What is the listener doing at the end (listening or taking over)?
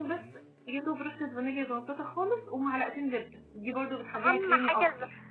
taking over